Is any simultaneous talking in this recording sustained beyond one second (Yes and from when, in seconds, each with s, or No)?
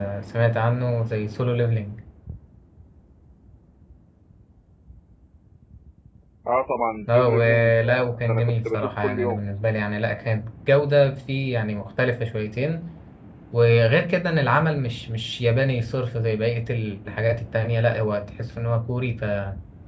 Yes, from 7.1 s